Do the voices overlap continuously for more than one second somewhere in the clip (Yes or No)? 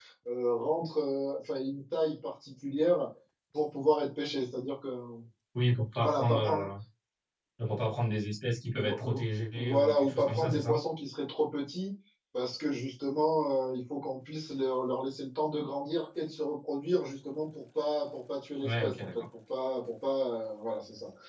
Yes